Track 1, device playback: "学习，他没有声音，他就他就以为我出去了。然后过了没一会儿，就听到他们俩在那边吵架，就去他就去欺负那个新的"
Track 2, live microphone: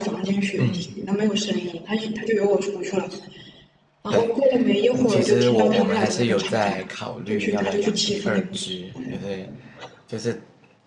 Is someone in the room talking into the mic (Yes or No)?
Yes